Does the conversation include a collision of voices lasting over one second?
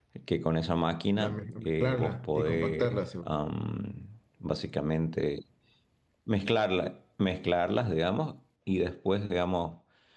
Yes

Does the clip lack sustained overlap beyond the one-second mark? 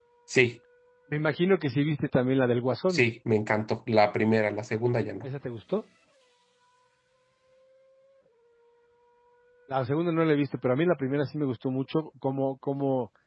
Yes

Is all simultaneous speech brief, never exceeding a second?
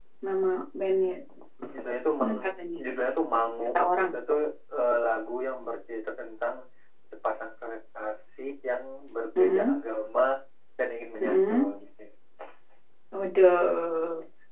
Yes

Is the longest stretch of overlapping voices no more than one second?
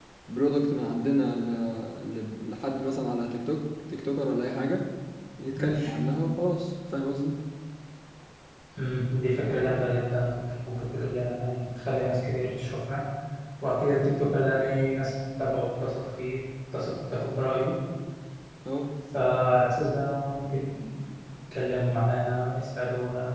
Yes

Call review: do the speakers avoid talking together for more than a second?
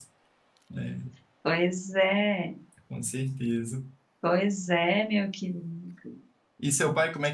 Yes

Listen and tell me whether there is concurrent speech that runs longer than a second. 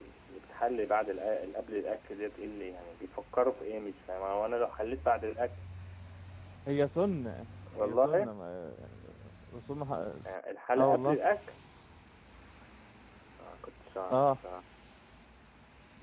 No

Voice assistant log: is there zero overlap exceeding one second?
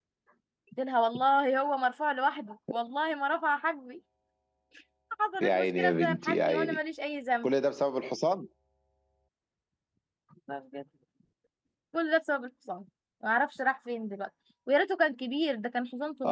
No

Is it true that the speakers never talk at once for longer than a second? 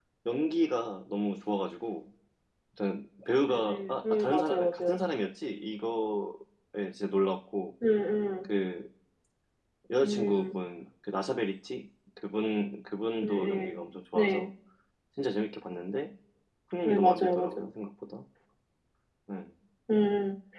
No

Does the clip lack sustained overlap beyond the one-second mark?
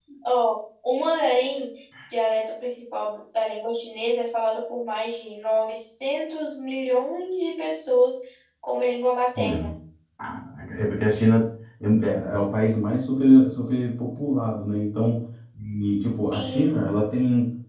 Yes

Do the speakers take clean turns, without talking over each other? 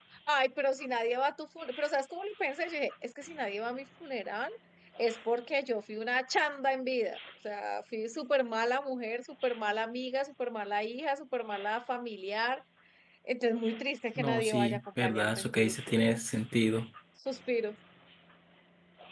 No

